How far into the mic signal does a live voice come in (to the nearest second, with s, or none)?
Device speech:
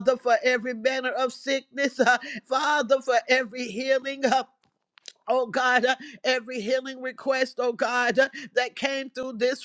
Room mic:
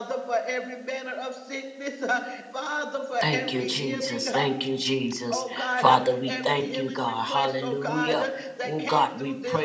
3 s